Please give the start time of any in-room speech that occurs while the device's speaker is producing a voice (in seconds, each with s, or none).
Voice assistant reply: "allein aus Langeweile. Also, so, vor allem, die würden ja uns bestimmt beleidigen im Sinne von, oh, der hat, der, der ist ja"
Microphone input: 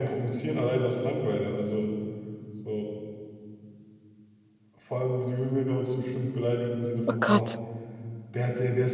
7.1 s